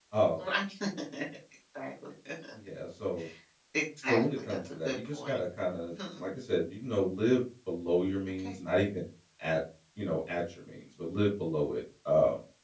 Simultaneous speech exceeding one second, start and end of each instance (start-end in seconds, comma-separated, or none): 4.1-5.4